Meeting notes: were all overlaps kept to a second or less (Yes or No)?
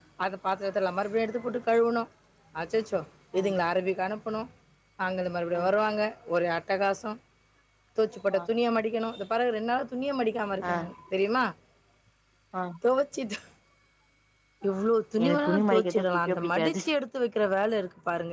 No